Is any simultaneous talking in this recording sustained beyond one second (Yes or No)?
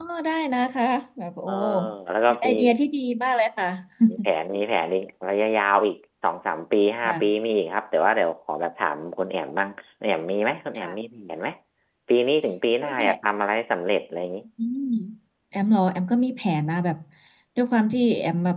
No